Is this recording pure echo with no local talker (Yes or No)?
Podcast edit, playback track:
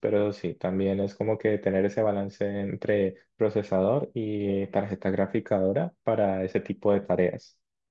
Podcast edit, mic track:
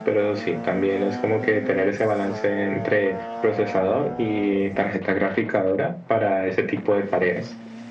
Yes